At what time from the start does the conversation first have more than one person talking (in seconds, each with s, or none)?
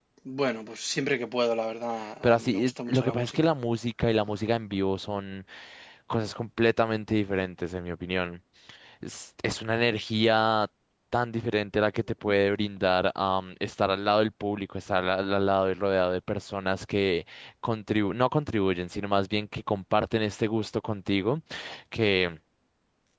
2.2 s